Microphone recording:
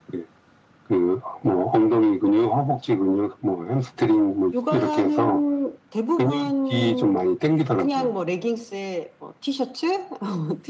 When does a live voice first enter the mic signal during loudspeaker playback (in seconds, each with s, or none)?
none